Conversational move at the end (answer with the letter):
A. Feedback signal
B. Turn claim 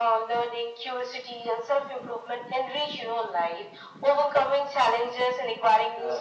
A